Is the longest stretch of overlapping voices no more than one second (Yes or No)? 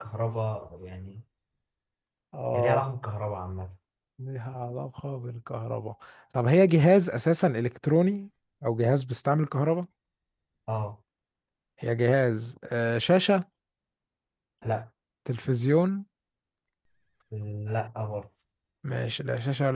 Yes